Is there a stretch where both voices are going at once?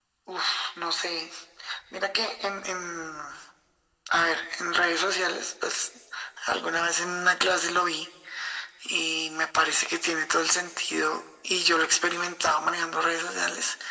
No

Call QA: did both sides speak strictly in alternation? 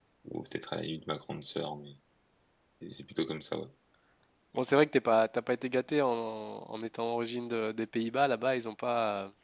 Yes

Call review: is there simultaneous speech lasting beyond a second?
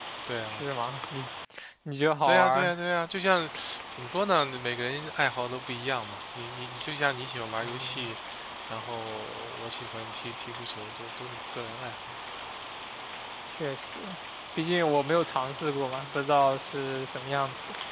No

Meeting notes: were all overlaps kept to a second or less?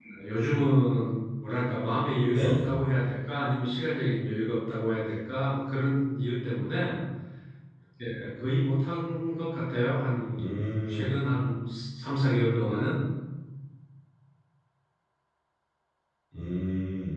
Yes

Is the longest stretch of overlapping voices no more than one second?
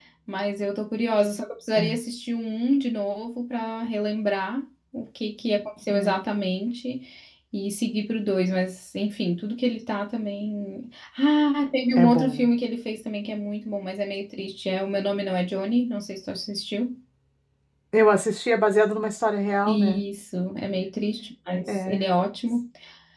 Yes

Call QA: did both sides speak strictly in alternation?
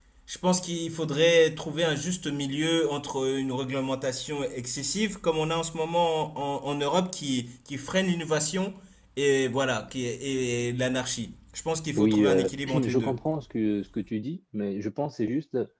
No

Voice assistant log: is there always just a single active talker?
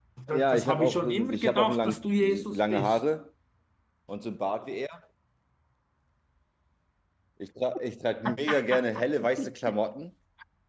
No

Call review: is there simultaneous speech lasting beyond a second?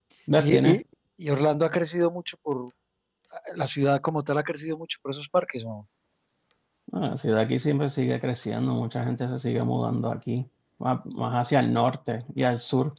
No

